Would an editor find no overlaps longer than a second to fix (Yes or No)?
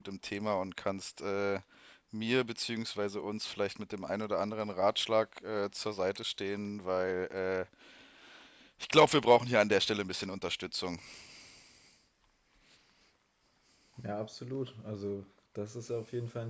Yes